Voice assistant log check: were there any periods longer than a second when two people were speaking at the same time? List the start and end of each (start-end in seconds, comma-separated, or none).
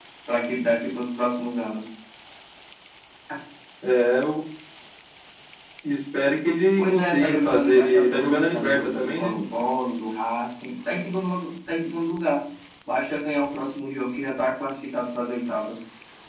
6.8-9.3